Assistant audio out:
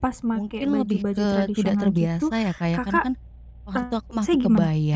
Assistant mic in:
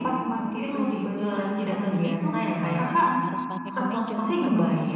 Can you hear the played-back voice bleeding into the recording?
Yes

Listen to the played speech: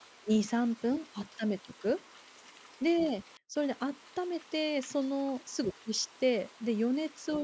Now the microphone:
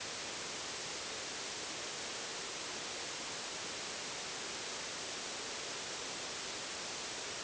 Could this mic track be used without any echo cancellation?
Yes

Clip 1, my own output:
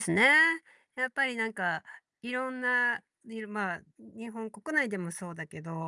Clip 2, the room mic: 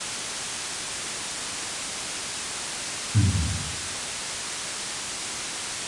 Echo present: No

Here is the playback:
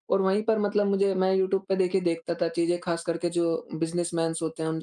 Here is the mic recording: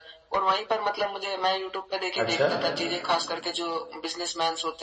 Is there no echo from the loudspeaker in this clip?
No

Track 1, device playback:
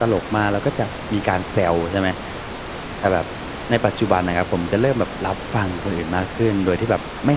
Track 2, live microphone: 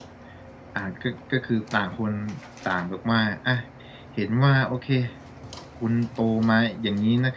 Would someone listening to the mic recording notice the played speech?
No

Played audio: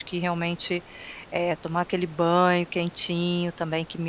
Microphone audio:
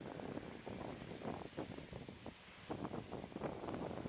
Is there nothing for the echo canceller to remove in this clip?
Yes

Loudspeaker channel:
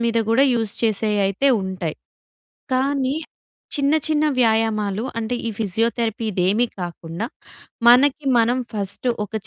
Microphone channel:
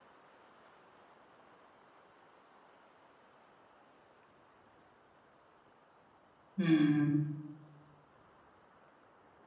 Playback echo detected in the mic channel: No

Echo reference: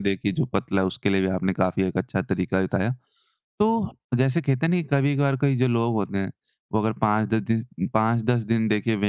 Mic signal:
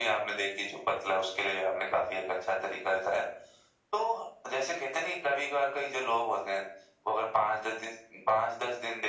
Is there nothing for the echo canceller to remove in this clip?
No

